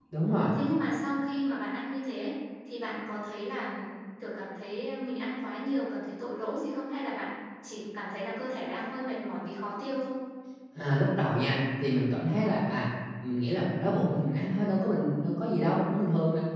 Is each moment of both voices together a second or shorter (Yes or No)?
Yes